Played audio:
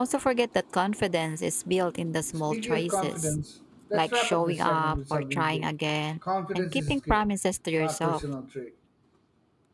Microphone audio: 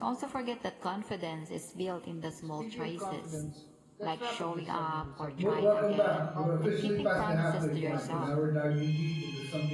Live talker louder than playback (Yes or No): Yes